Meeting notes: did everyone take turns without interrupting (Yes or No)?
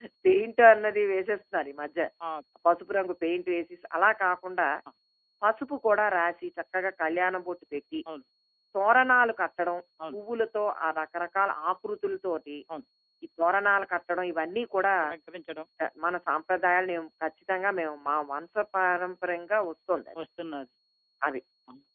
Yes